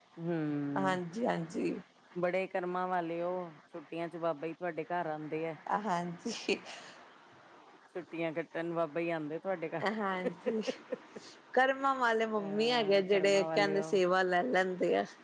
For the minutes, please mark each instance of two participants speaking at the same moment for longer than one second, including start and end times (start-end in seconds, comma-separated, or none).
12.4-14.0